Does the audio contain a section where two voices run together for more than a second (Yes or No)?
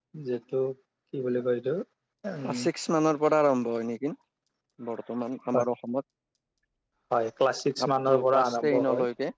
Yes